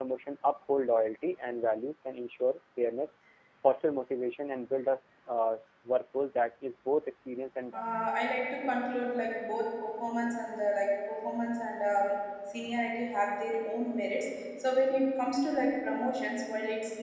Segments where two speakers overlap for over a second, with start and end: none

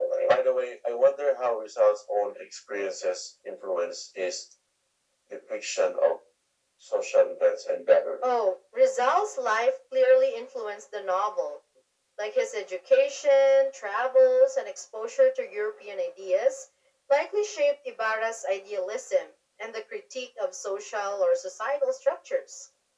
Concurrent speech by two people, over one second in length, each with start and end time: none

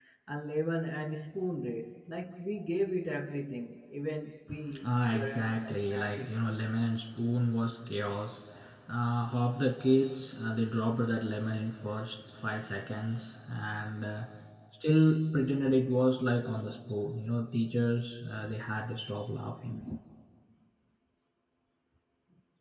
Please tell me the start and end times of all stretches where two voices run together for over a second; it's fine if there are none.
4.8-6.3

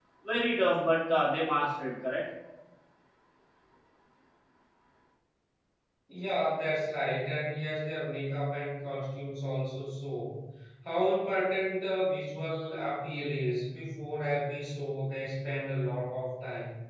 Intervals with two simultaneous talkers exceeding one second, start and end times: none

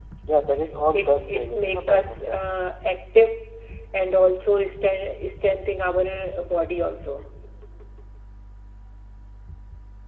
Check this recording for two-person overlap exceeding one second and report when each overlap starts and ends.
0.9-2.4

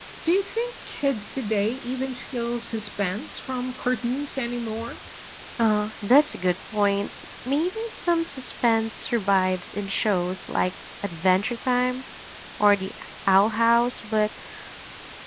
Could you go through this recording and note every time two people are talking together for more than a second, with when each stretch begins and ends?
none

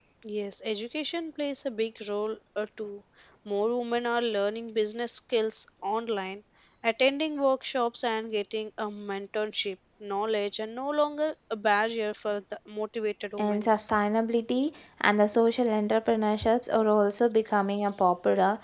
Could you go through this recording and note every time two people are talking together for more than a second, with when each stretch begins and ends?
none

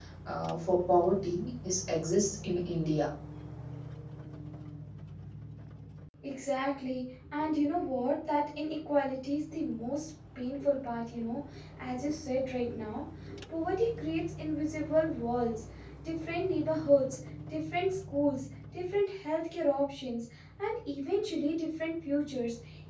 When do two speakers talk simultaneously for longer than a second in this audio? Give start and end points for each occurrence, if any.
none

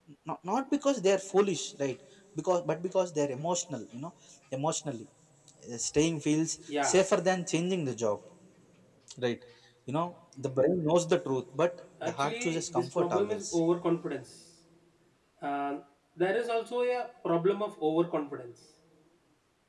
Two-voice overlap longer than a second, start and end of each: 12.0-13.6

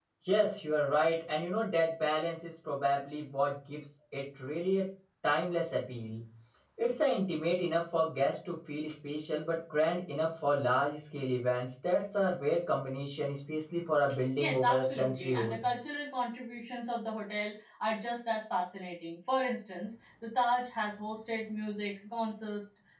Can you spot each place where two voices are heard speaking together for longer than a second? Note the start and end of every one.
14.4-15.6

